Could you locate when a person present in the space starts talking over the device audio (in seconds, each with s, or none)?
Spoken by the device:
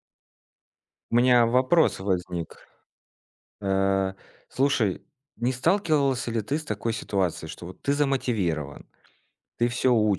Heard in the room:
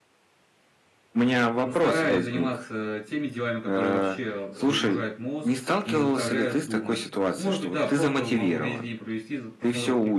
1.6 s